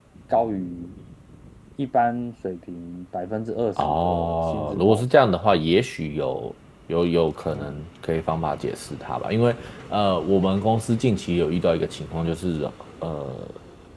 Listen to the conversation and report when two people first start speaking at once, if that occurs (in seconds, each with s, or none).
3.9 s